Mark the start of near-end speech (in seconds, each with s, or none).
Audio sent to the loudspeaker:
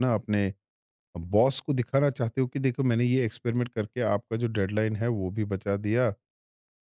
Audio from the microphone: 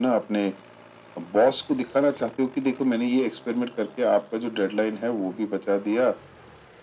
none